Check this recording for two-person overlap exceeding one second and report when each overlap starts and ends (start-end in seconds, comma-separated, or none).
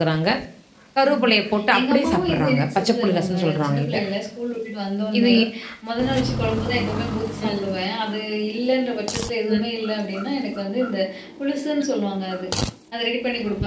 1.8-4.0